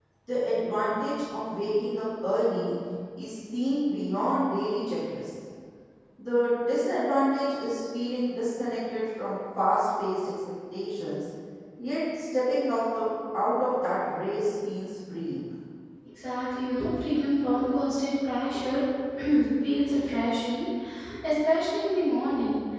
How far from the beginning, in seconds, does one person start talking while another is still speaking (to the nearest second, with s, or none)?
none